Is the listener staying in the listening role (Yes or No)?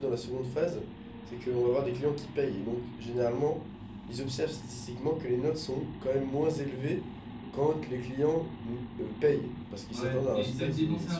No